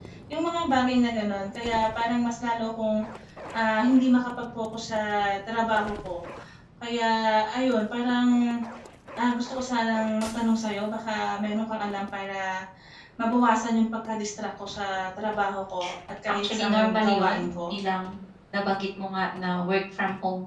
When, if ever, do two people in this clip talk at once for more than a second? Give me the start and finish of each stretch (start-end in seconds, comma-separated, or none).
16.4-17.8